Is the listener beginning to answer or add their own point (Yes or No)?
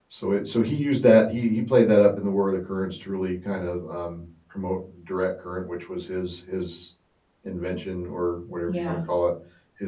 No